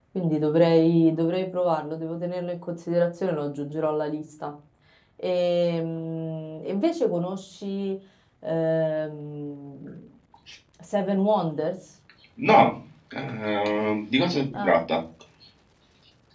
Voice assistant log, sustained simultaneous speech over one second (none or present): none